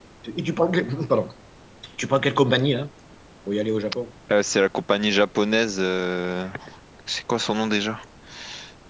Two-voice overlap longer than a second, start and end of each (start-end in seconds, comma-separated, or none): none